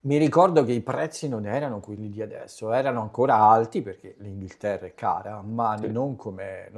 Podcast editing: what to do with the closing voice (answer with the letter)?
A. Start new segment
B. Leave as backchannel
B